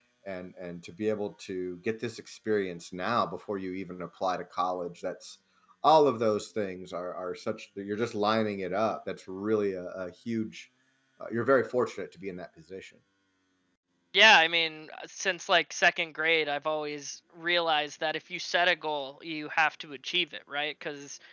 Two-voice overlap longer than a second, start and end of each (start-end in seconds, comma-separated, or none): none